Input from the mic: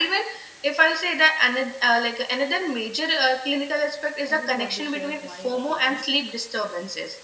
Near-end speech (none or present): present